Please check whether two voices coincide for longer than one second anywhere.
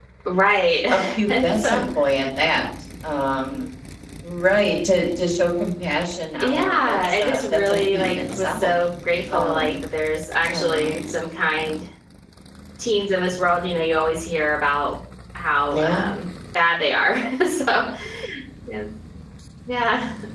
Yes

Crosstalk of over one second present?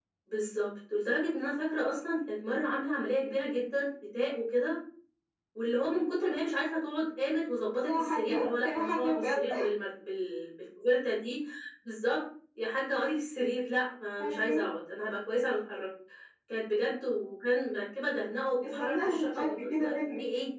Yes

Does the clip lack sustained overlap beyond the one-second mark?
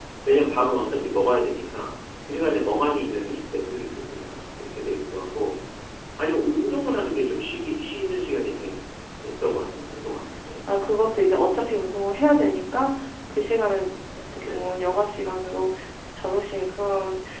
Yes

